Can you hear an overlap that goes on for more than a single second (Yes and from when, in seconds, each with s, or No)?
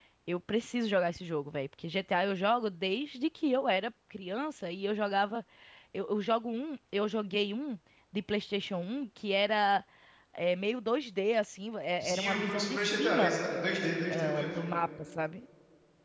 Yes, from 12.0 s